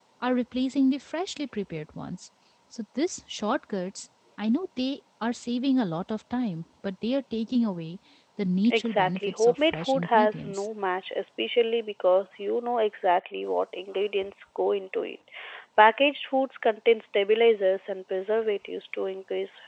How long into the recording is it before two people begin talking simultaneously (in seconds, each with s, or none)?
8.7 s